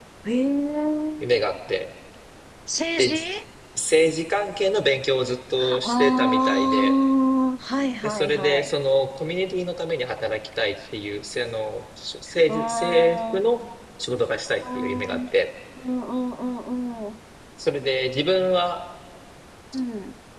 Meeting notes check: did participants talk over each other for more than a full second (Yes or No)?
Yes